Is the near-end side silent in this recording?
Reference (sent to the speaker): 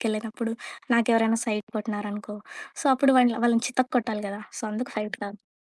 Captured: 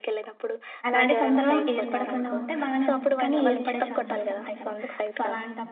No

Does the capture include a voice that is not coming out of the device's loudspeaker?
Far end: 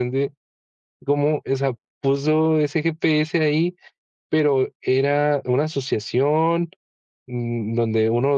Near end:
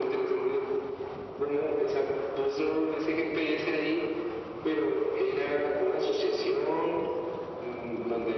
No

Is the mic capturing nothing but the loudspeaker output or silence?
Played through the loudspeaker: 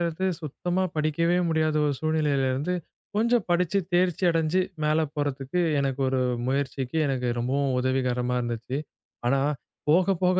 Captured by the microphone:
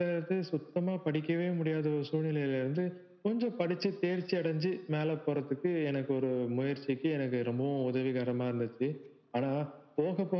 Yes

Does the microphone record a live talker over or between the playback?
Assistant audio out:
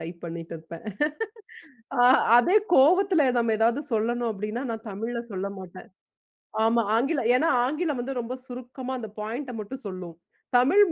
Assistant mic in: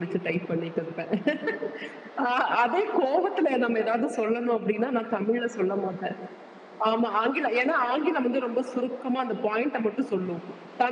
No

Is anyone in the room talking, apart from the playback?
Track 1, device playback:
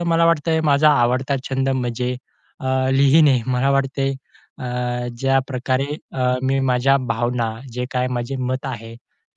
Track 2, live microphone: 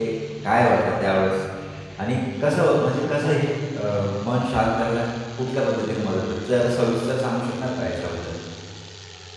Yes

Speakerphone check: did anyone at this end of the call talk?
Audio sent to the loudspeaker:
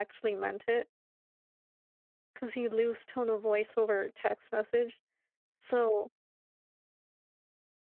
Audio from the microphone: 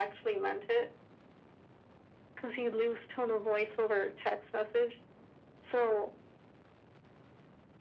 No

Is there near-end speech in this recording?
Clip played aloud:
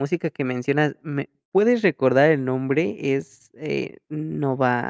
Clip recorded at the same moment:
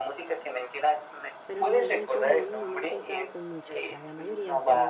Yes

